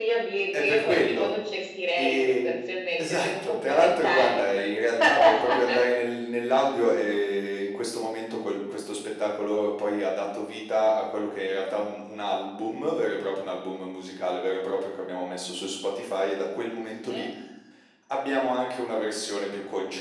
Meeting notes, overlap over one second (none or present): present